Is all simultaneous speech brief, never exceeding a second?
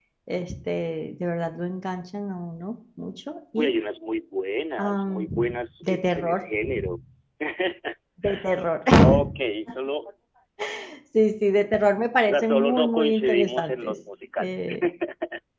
No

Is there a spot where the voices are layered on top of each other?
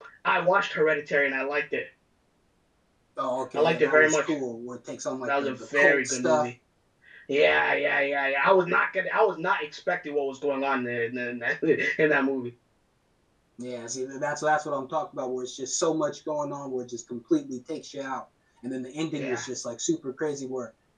Yes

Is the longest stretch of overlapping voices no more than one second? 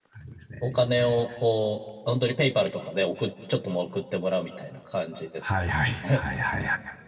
Yes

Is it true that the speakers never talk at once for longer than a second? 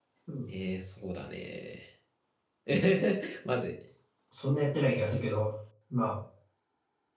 Yes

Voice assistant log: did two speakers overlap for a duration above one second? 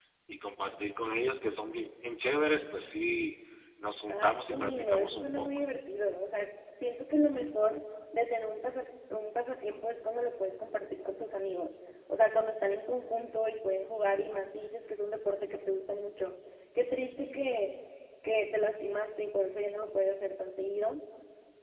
Yes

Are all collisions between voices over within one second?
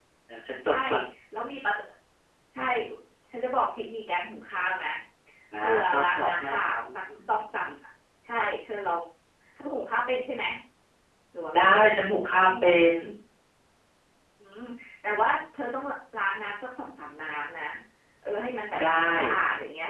No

